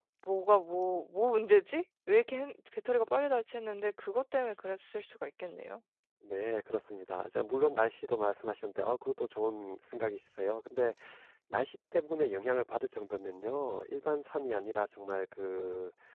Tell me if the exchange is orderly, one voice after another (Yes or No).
Yes